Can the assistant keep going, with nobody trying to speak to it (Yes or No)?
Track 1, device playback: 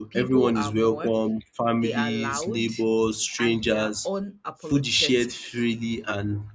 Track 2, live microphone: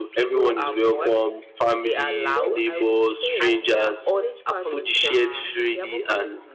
No